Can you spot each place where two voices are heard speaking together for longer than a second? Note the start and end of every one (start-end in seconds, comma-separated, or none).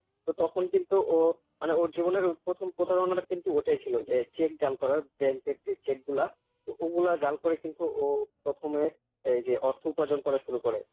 none